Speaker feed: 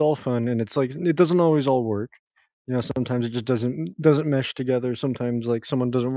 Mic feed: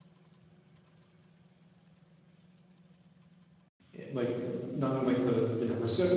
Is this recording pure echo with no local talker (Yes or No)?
No